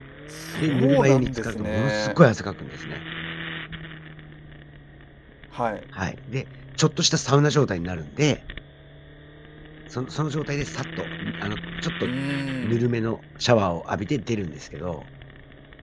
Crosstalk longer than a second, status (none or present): present